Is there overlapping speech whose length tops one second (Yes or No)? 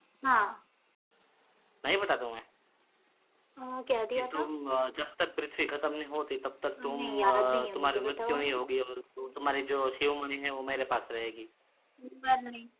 Yes